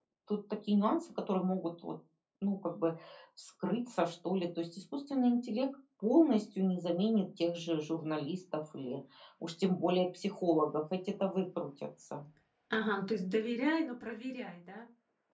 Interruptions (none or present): none